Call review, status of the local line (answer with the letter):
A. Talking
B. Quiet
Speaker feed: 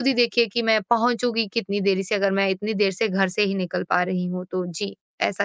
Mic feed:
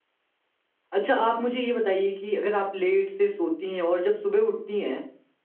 A